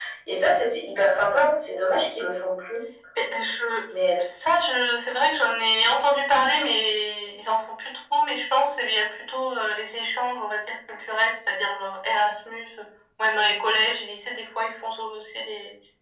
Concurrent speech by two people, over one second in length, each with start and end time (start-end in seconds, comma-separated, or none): none